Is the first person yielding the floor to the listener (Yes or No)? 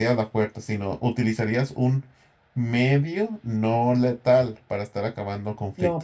Yes